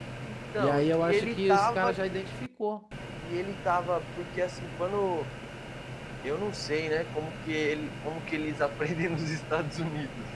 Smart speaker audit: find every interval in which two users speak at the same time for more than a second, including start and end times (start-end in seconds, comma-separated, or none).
0.6-2.0